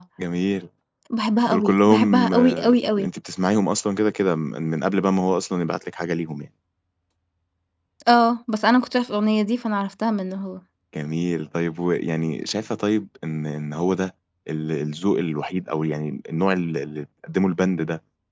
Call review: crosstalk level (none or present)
present